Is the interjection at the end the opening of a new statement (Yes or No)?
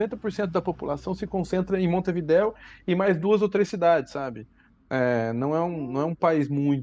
No